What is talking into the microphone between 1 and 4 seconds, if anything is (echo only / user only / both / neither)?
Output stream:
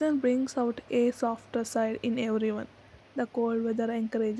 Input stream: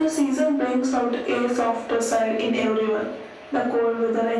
echo only